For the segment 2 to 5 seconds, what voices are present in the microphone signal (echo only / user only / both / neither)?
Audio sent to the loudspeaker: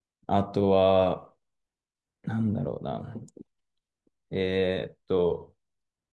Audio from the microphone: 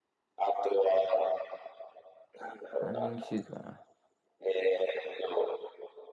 both